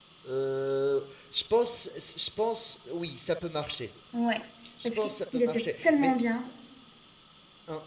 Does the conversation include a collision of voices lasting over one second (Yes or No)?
Yes